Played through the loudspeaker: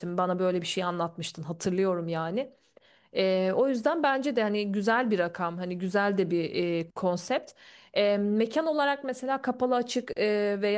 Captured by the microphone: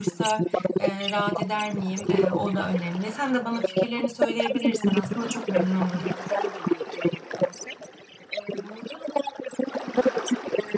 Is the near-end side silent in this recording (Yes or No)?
No